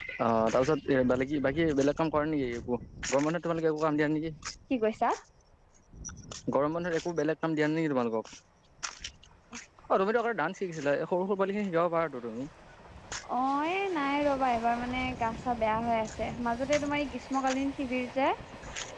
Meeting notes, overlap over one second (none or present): none